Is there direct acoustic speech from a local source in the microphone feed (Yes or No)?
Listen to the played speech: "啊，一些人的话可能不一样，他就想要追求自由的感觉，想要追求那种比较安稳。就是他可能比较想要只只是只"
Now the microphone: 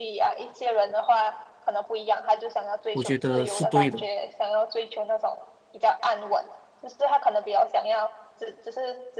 Yes